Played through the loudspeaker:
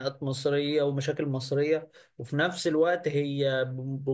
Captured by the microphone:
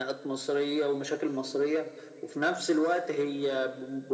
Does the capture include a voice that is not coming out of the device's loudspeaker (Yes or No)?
No